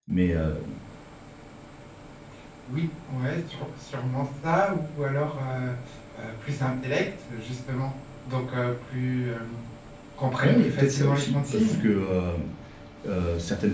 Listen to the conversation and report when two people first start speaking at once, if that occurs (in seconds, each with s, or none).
10.4 s